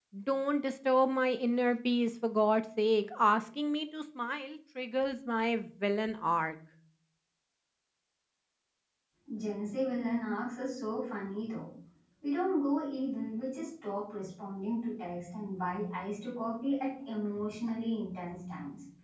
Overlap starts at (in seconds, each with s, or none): none